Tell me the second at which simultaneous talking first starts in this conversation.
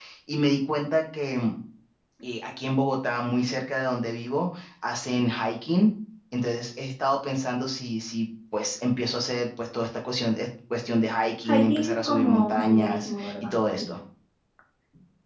11.4 s

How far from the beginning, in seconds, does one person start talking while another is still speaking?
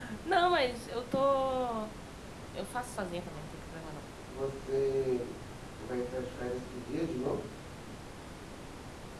none

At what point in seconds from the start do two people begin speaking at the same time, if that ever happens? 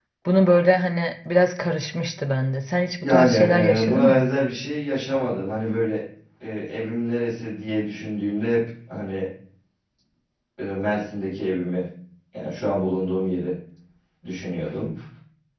3.0 s

